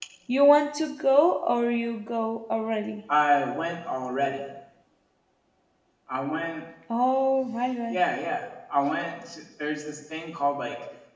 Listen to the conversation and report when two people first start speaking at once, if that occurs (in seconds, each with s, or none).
none